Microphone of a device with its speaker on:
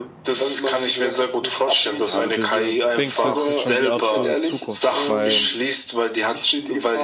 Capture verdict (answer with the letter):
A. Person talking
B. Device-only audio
A